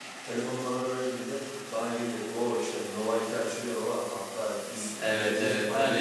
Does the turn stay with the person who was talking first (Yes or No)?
No